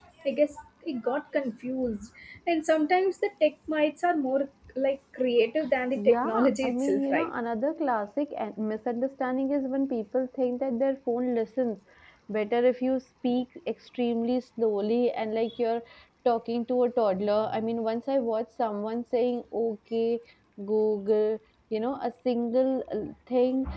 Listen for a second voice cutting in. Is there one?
Yes, from 6.0 s

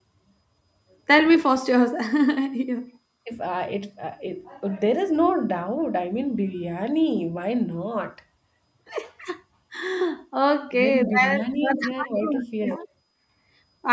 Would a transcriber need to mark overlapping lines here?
Yes, from 10.7 s

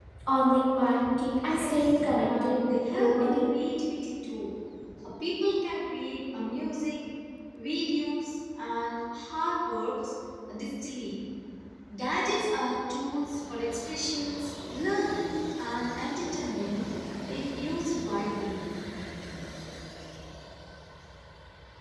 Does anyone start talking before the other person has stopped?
Yes, from 1.5 s

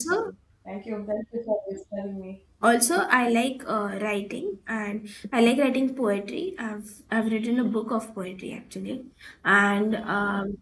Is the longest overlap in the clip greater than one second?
No

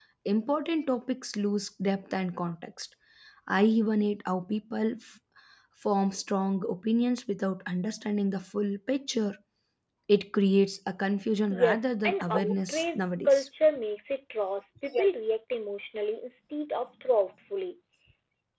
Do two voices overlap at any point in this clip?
Yes, from 11.5 s

